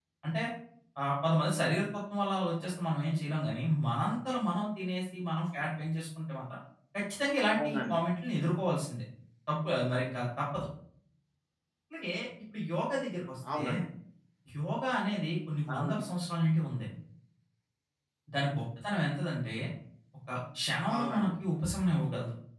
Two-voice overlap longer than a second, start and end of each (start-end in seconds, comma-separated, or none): none